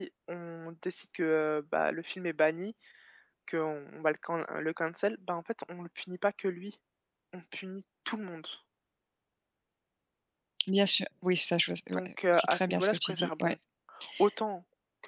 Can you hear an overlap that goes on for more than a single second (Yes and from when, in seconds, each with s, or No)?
Yes, from 11.9 s